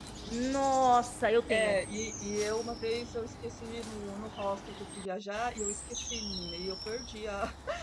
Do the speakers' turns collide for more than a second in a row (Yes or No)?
No